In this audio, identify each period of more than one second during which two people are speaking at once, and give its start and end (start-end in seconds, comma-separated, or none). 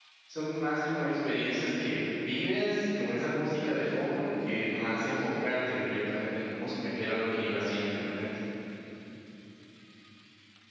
none